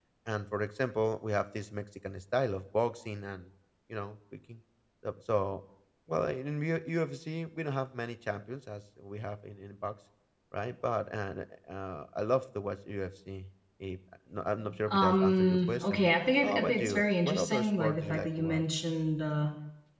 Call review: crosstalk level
present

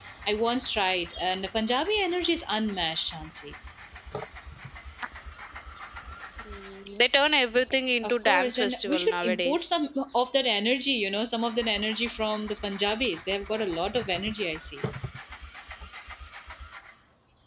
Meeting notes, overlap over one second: present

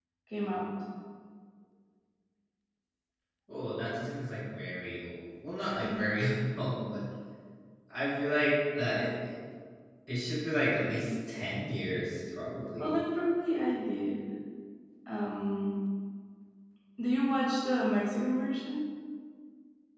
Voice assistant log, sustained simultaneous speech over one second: none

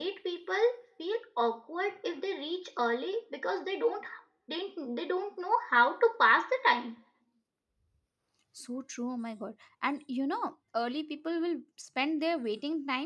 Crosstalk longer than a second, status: none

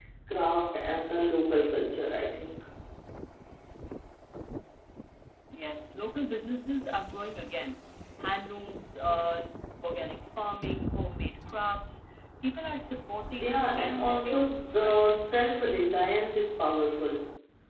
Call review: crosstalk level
present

